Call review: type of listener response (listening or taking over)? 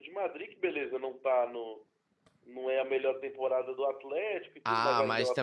taking over